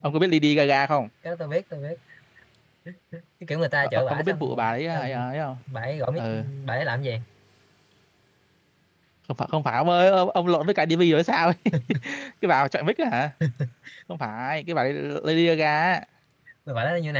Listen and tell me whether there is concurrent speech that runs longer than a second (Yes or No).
Yes